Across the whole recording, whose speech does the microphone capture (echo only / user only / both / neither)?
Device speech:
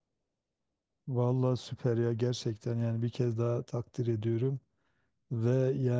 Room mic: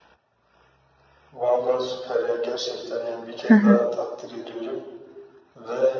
both